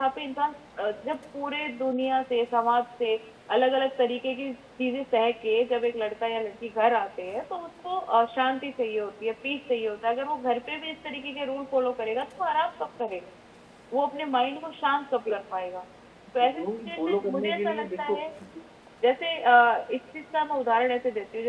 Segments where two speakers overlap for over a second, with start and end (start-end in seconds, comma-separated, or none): 16.5-18.2